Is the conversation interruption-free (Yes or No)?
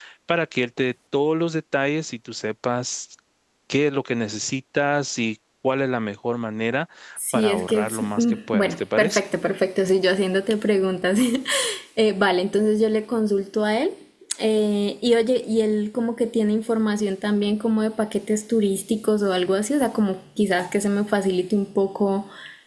No